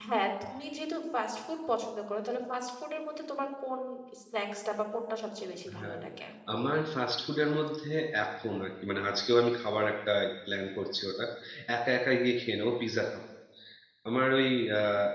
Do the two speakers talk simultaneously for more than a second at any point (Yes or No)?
No